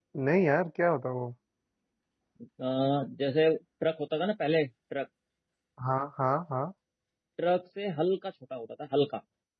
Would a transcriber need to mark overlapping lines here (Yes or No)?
No